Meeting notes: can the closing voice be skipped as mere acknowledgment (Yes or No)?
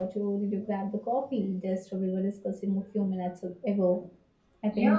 No